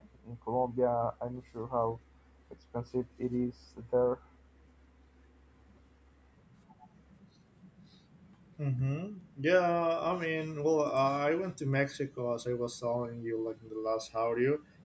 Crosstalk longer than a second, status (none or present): none